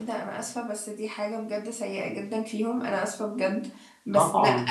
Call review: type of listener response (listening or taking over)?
listening